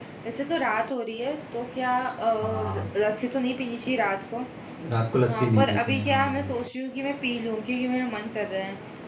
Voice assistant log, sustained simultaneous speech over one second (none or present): present